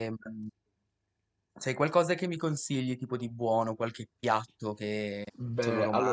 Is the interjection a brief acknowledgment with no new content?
No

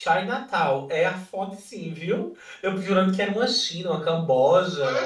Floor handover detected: Yes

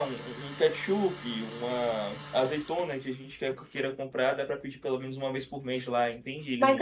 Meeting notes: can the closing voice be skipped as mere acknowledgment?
No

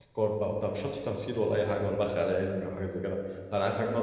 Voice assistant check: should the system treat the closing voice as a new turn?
No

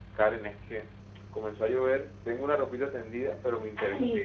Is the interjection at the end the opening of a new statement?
No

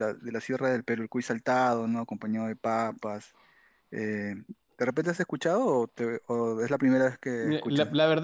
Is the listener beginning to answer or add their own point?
Yes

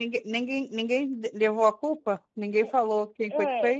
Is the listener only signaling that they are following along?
No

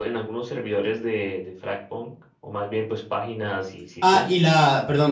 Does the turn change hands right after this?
Yes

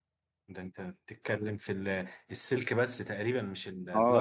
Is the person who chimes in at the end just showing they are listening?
No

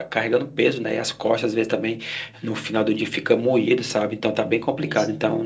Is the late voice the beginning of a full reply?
No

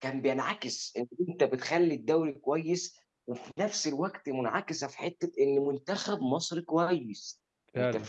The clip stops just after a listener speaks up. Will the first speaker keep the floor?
Yes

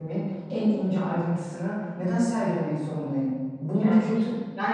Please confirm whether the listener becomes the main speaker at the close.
No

